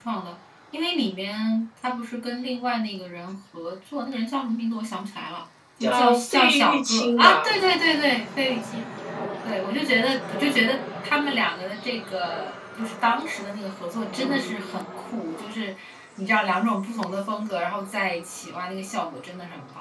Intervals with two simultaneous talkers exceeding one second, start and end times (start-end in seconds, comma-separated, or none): 5.8-7.5